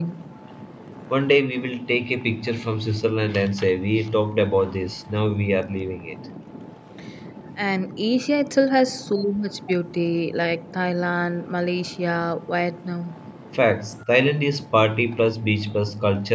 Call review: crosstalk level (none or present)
none